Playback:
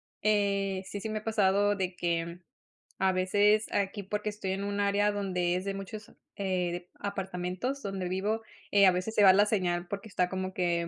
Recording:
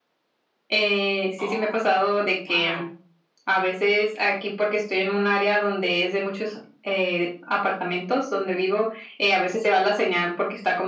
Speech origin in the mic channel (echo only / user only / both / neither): both